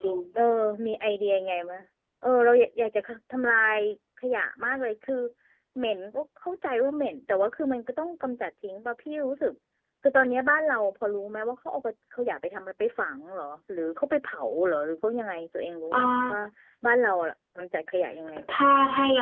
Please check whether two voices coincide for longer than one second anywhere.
No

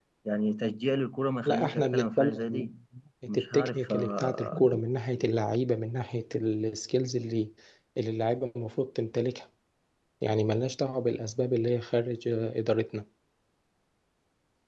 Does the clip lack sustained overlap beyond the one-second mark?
No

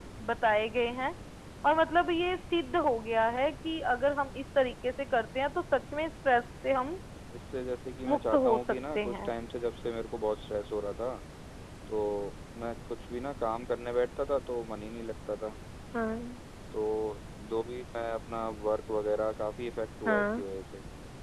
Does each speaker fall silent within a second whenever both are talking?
No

